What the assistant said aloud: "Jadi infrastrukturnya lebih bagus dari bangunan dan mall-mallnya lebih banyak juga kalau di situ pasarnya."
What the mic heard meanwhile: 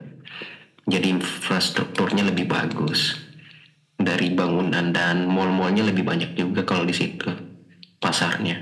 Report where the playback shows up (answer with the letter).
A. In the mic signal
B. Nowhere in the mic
A